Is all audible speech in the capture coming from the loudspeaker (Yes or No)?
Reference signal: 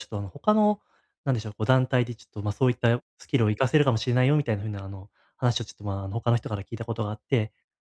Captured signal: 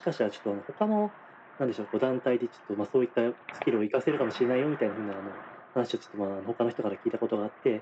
Yes